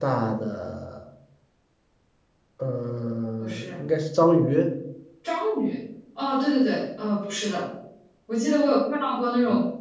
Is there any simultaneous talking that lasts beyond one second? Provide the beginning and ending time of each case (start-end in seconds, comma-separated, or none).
none